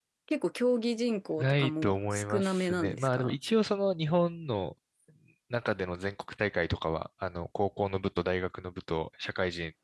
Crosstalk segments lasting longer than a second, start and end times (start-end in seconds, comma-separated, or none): 1.4-3.4